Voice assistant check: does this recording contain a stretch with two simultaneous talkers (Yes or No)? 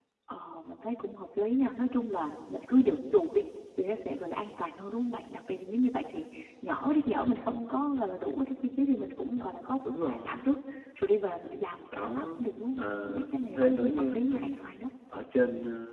Yes